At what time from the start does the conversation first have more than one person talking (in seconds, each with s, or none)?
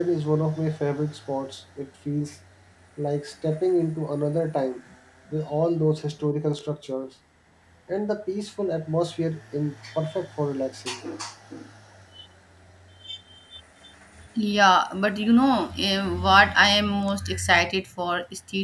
none